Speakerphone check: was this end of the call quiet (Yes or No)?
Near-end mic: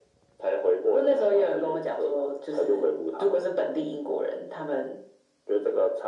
Yes